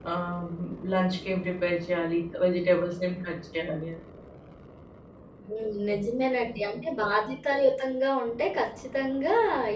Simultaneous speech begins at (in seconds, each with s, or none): none